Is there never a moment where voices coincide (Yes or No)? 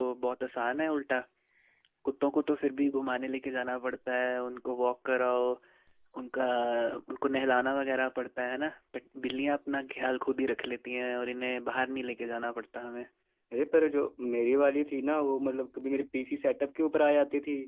Yes